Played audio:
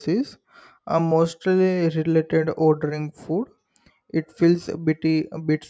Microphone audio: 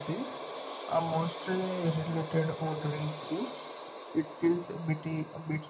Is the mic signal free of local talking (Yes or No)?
Yes